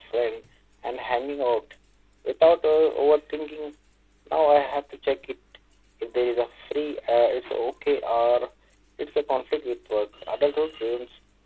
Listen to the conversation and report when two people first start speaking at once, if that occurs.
none

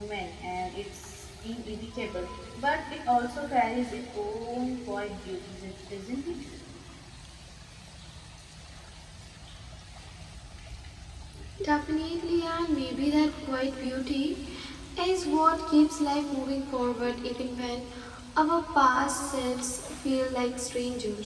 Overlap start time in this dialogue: none

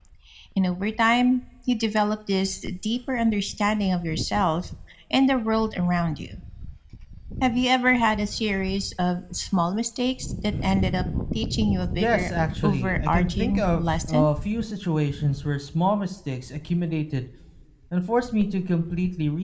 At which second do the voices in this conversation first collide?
12.0 s

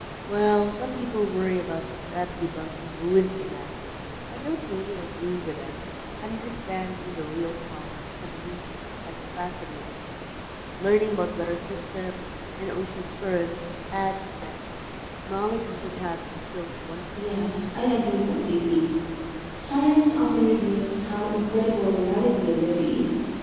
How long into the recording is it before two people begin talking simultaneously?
none

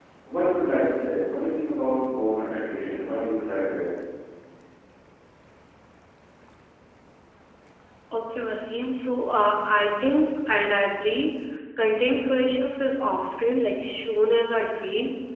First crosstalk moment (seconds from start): none

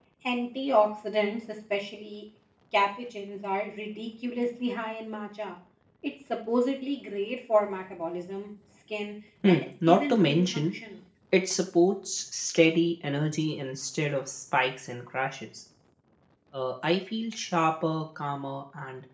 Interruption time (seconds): 9.4 s

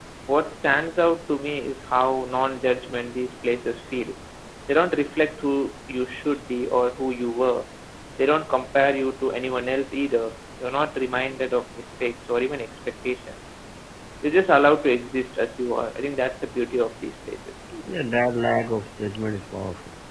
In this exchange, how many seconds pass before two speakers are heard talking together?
none

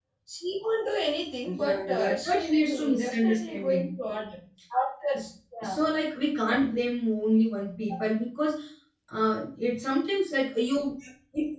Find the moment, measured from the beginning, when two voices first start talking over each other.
1.5 s

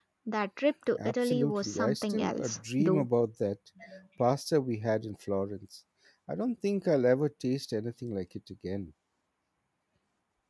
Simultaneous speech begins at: 1.0 s

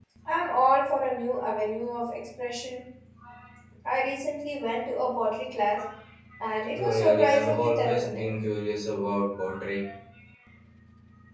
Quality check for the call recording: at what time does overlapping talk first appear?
6.8 s

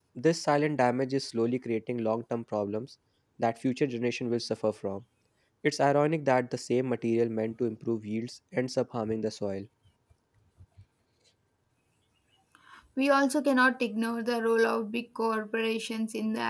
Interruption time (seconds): none

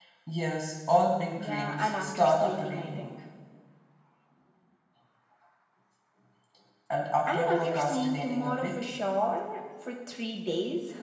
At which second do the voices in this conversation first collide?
1.4 s

